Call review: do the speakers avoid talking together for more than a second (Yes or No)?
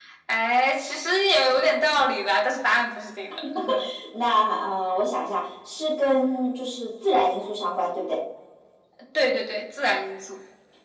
Yes